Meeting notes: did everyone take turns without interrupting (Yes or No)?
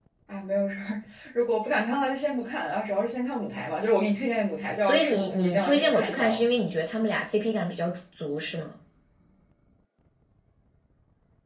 No